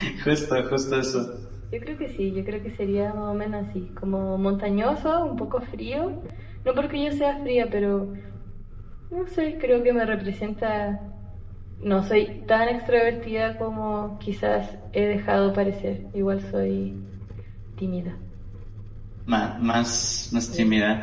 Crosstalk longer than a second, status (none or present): none